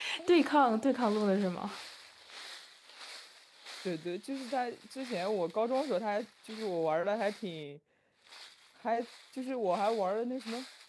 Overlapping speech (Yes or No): No